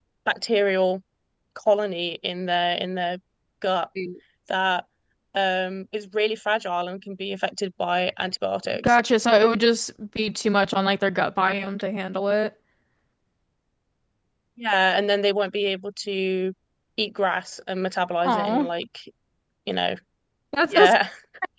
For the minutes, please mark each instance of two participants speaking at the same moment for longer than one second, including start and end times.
none

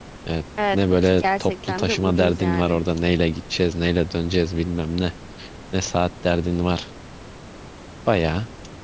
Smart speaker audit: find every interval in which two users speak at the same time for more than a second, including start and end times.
0.7-2.8

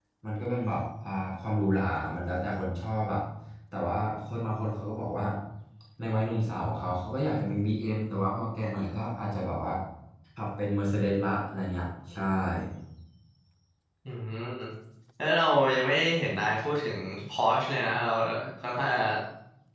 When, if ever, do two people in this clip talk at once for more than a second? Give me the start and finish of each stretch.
none

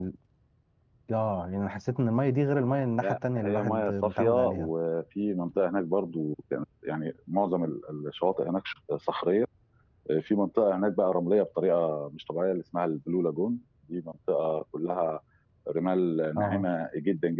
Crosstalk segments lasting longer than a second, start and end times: 3.0-4.7

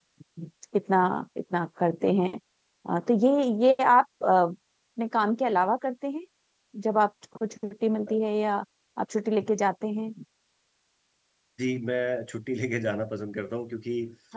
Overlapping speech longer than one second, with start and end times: none

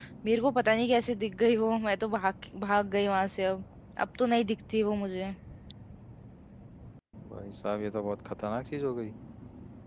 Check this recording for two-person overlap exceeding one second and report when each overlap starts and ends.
none

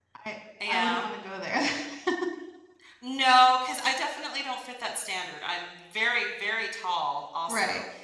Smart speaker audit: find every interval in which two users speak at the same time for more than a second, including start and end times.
none

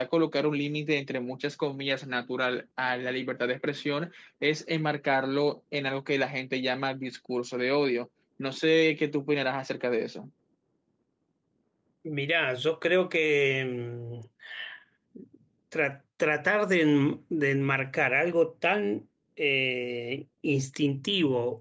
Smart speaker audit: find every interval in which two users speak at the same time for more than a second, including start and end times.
none

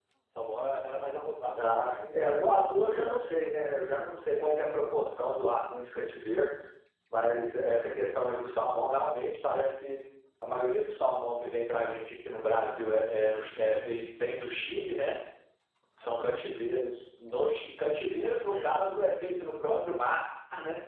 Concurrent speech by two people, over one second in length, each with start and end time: 1.6-3.2

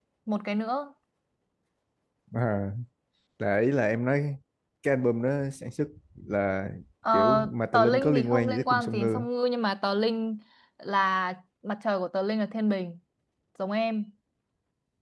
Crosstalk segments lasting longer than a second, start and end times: 7.7-9.3

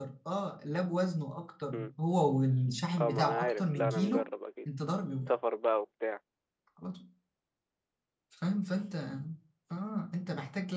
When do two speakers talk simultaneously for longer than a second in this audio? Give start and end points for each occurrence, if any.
3.0-4.2

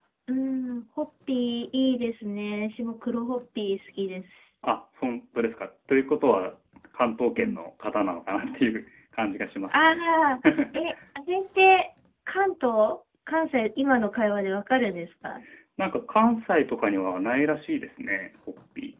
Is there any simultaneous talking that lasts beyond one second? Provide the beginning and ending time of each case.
none

